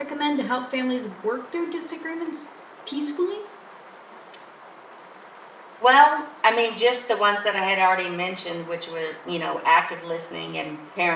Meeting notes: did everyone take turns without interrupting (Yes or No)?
Yes